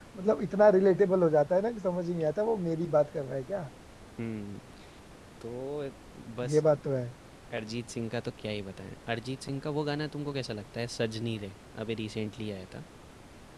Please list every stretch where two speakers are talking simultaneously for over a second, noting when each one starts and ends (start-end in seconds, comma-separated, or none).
none